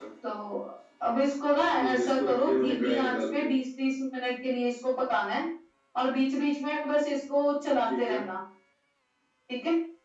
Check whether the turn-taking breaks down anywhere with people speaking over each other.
Yes, from 1.7 s

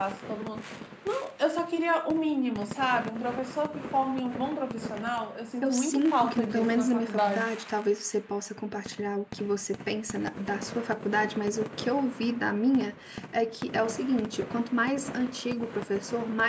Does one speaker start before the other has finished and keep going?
Yes, from 5.6 s

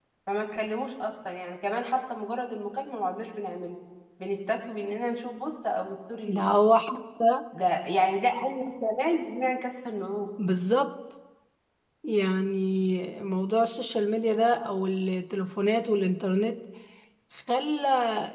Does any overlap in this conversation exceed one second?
No

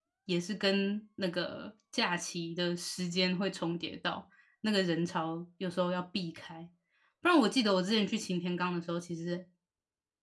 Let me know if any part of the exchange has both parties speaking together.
No

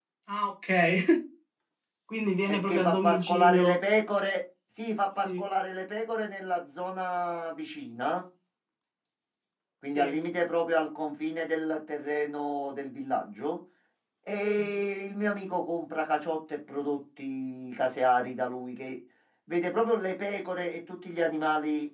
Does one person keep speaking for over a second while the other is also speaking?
Yes, from 2.5 s

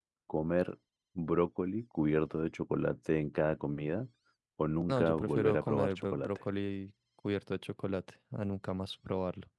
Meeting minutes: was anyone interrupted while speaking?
Yes, from 4.9 s

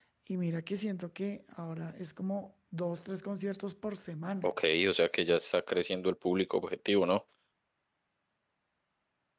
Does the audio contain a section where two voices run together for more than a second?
No

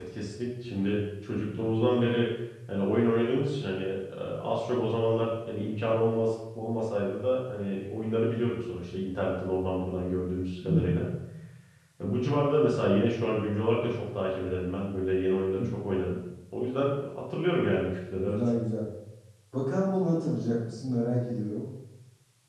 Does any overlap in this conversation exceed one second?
No

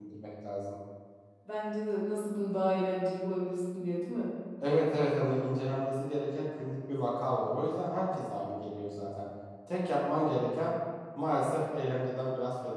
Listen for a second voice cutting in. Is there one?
No

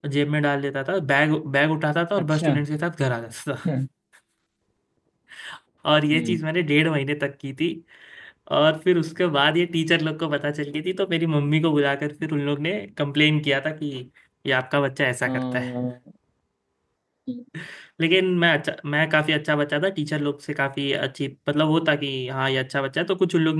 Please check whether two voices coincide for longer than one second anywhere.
No

